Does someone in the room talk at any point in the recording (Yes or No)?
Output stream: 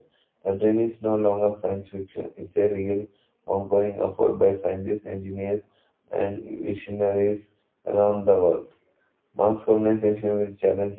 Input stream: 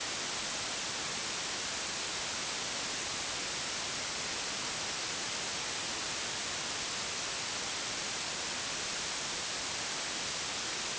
No